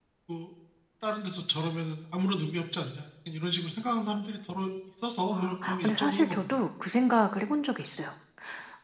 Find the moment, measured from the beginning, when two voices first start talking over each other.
5 s

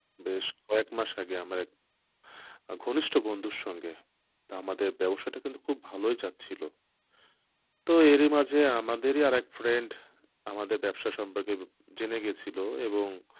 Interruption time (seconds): none

